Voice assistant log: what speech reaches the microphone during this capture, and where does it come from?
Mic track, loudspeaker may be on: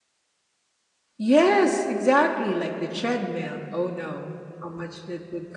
user only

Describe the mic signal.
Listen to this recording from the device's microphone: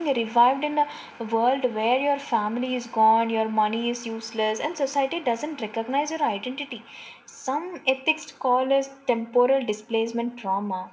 echo only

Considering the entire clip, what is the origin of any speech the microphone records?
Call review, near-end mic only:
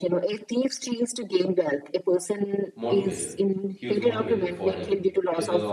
both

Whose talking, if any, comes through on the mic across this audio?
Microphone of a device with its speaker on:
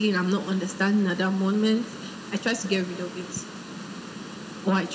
echo only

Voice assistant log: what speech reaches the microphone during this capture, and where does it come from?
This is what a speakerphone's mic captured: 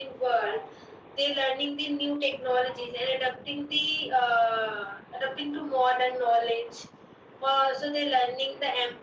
echo only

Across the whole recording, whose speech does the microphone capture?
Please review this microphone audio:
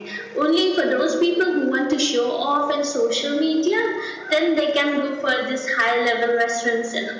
echo only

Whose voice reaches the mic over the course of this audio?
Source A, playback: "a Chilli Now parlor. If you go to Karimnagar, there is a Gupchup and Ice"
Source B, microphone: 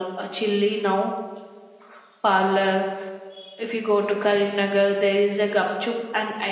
echo only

